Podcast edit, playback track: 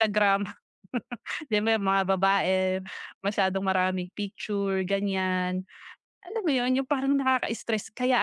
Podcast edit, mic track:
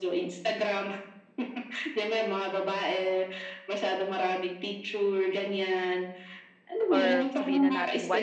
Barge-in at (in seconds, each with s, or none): 6.9 s